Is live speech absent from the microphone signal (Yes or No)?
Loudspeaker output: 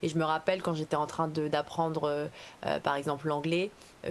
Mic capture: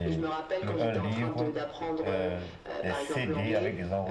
No